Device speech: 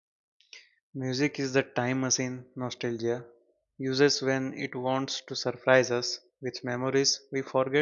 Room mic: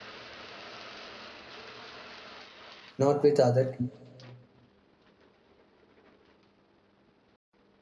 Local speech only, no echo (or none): not with other